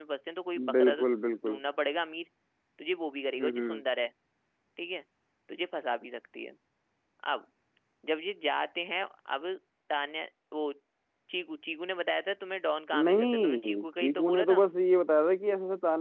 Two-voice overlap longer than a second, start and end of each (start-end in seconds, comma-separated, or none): 13.0-14.6